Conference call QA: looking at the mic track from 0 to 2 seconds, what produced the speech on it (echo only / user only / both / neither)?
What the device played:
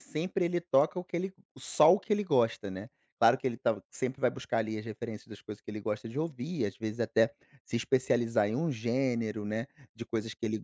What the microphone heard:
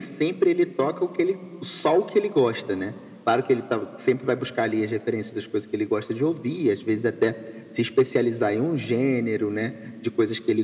echo only